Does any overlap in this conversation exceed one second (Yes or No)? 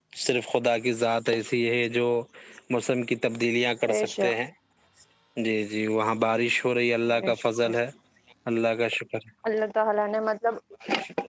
No